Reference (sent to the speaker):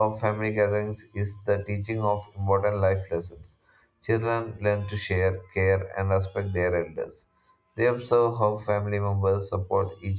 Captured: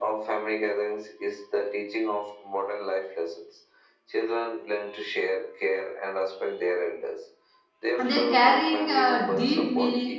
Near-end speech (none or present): present